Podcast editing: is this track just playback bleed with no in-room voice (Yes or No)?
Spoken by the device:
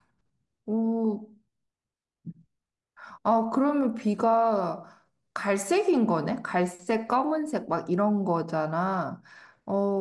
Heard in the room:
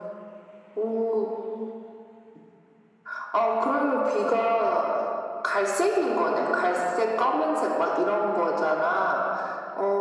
Yes